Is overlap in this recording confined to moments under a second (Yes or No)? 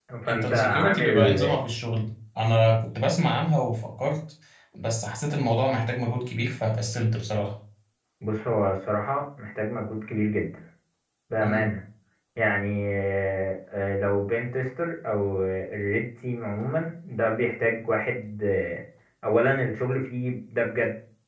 No